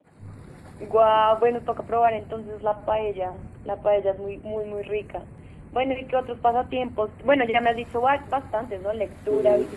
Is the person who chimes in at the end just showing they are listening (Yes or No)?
Yes